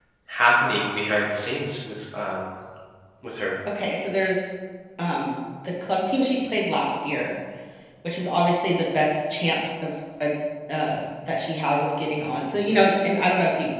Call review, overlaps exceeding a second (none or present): none